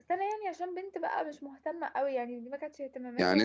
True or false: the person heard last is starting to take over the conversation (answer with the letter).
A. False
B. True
B